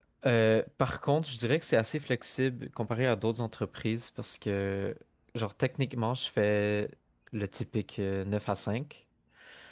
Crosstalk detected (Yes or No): No